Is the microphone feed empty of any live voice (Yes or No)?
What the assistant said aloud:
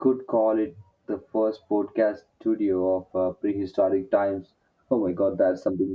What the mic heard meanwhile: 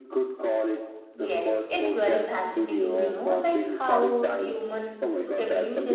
No